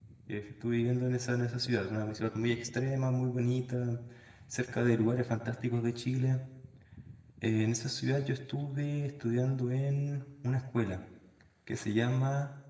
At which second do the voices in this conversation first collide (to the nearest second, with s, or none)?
none